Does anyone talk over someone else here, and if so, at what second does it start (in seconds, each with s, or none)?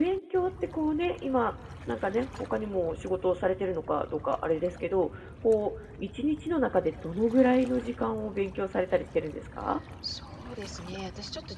none